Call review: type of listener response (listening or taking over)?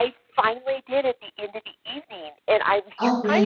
listening